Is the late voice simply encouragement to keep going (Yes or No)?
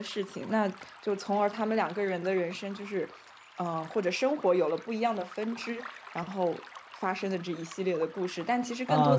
No